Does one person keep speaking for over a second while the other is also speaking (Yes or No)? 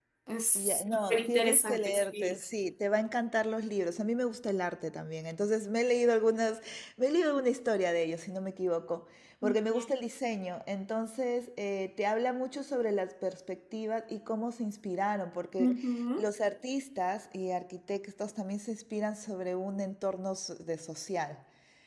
Yes